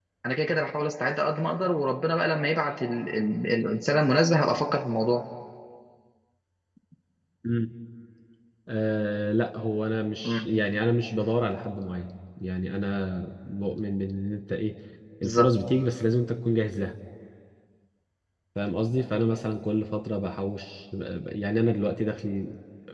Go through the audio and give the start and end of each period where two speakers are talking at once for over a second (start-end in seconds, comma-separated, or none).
none